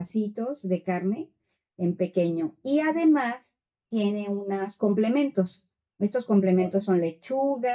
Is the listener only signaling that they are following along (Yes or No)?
Yes